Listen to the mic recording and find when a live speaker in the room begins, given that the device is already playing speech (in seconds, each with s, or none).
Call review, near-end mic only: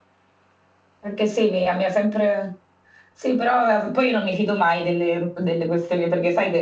1.0 s